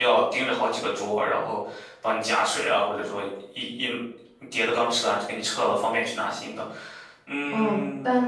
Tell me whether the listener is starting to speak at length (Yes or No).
Yes